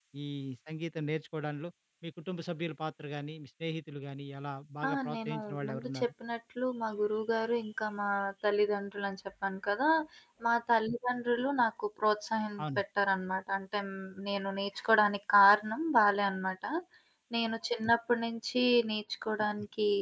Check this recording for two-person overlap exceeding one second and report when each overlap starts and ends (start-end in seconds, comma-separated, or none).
4.9-6.1